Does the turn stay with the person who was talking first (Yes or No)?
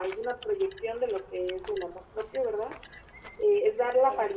Yes